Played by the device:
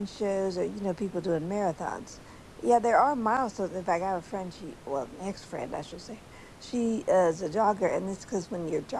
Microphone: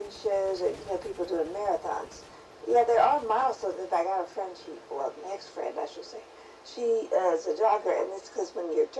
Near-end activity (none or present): none